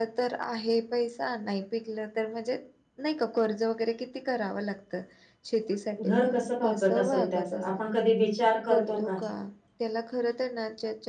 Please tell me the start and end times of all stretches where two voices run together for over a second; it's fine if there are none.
6.0-7.9

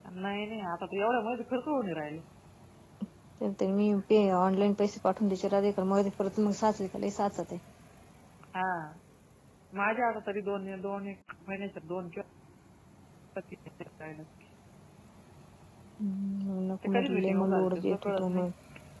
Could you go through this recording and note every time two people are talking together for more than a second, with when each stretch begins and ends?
16.9-18.4

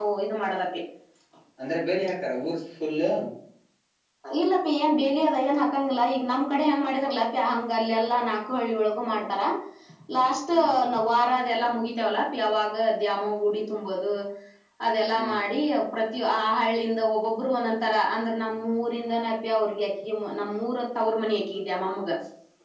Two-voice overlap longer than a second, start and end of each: none

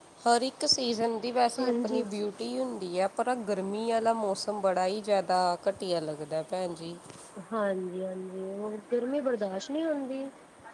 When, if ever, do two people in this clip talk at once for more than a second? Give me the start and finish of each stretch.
none

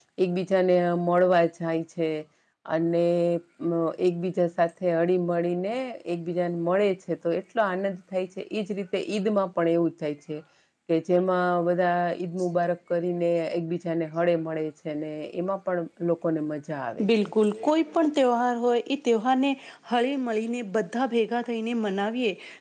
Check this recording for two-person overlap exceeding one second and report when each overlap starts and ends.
none

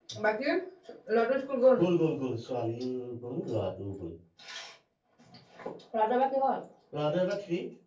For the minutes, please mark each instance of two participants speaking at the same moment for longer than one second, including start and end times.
none

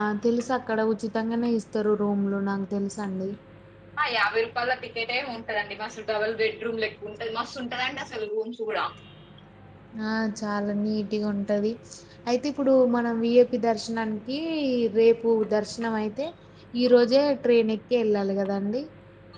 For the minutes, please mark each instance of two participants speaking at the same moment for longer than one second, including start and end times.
none

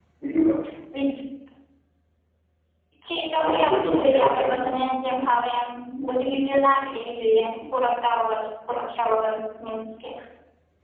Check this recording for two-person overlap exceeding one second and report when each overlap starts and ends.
3.4-4.7

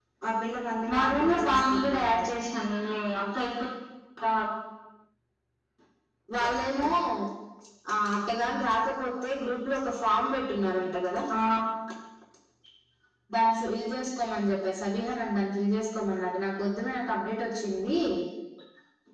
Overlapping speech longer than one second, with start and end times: 0.9-2.2

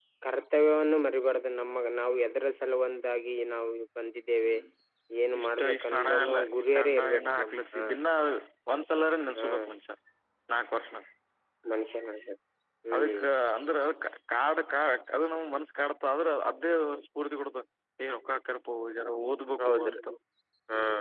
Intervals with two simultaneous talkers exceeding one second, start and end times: 5.4-7.8

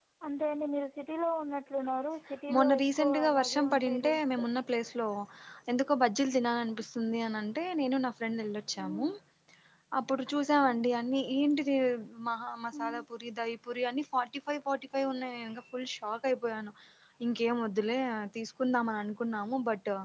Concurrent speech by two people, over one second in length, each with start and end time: 2.5-4.4

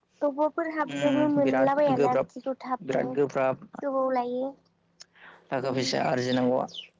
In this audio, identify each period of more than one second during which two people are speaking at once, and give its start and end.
0.9-2.2

